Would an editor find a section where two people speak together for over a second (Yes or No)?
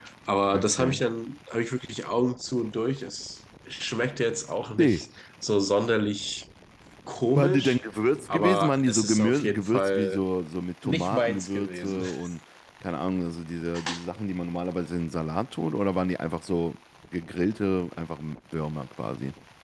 Yes